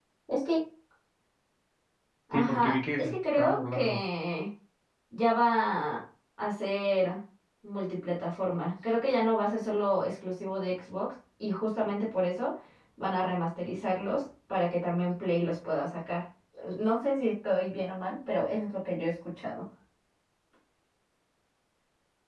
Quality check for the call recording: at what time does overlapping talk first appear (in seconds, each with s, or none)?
2.3 s